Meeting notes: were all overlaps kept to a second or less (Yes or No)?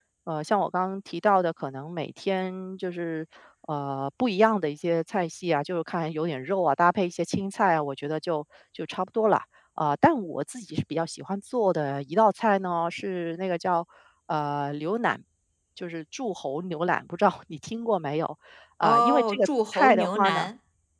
No